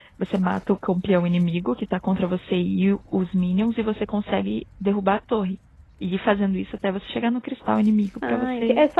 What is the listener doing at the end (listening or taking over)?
taking over